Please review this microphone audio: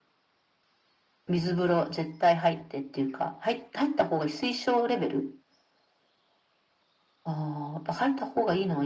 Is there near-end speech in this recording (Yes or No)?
No